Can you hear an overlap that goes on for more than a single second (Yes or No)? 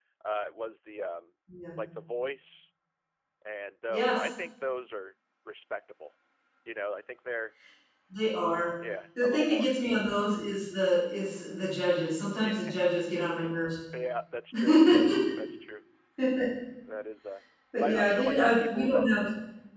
Yes